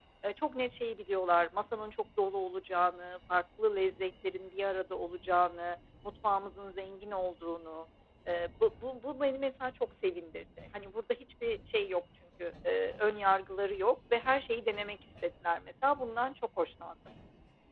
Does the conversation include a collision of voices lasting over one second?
No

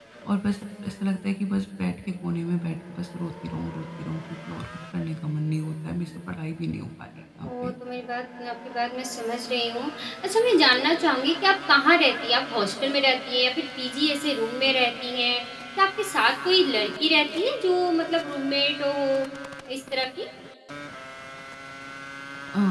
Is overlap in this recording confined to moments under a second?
Yes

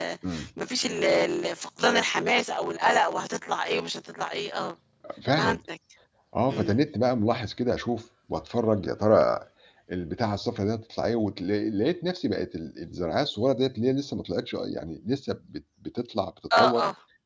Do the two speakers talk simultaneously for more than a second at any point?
No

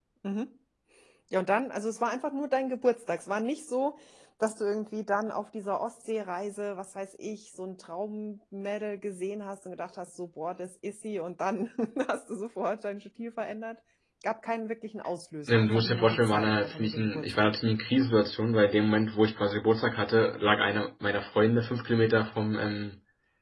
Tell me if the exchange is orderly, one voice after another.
No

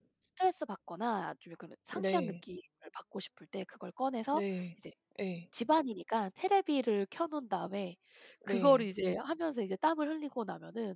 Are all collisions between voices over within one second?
Yes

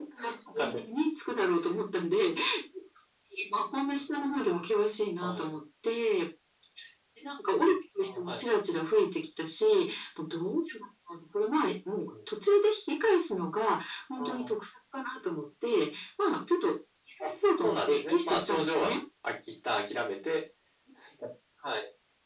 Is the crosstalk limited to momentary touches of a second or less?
No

